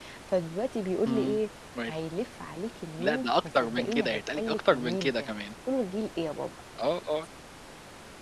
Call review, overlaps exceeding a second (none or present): present